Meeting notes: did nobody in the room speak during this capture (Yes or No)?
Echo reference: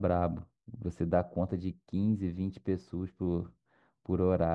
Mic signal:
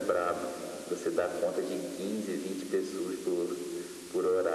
Yes